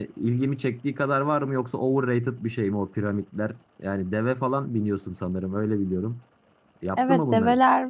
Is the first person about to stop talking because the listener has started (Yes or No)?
Yes